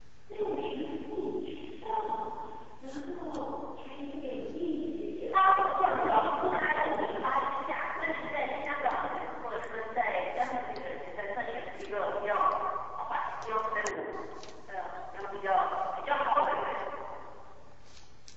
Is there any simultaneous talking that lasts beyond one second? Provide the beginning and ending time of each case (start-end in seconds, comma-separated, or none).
5.3-7.1